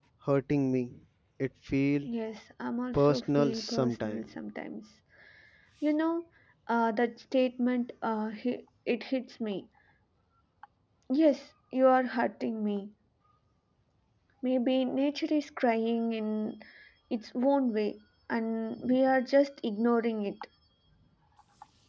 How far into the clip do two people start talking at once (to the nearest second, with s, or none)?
3 s